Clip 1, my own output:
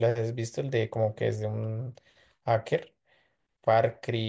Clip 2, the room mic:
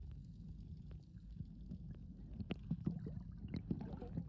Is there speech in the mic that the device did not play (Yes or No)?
No